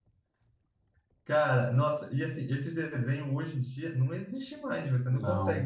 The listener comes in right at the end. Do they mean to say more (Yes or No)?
No